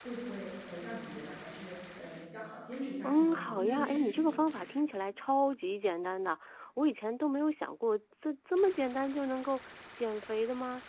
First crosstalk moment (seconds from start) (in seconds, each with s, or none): 3.0 s